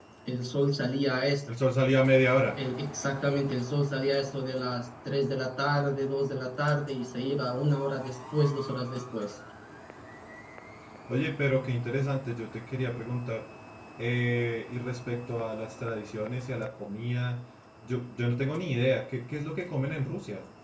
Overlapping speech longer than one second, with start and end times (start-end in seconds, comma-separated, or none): none